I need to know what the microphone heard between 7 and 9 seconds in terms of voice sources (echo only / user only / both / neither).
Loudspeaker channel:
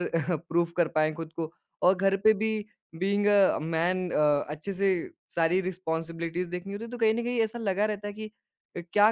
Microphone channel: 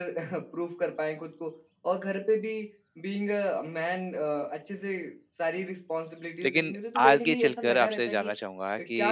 both